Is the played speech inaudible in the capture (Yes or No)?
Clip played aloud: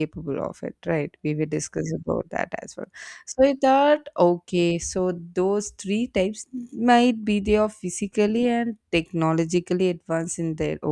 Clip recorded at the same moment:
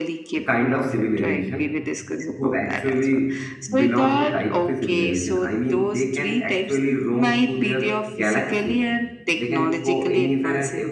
No